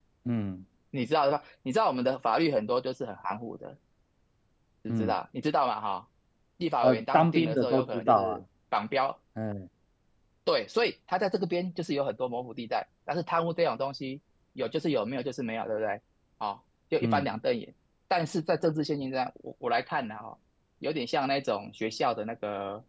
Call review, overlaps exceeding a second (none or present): present